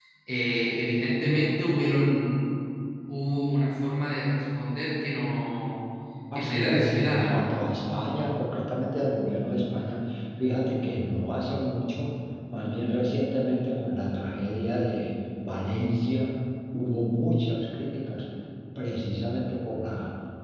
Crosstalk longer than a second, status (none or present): present